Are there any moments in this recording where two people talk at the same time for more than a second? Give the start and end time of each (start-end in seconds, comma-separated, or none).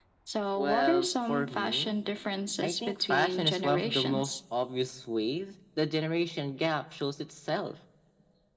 0.6-2.0, 2.6-4.3